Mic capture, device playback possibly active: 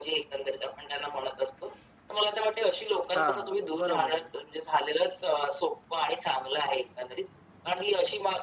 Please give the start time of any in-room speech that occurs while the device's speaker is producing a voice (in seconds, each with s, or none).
3.2 s